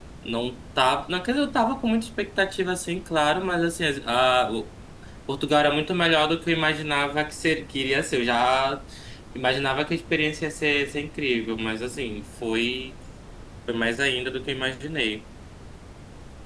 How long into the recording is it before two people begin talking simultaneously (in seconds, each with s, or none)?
none